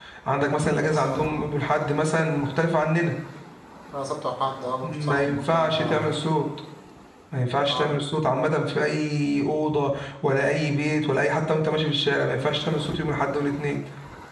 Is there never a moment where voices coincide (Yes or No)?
No